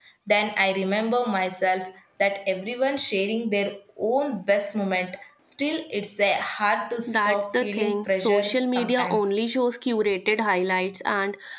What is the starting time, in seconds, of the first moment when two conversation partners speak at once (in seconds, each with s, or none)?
7.1 s